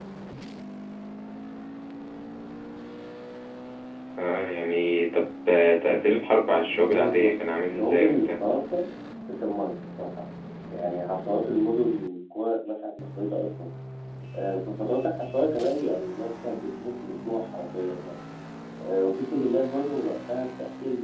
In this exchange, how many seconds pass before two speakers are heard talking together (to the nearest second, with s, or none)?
7 s